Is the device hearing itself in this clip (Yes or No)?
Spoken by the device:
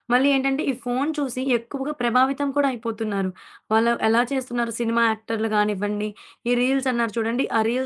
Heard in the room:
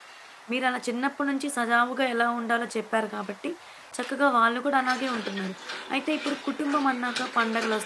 No